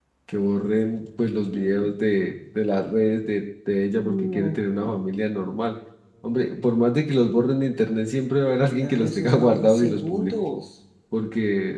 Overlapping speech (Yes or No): Yes